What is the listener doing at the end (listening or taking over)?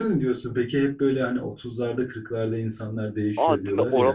taking over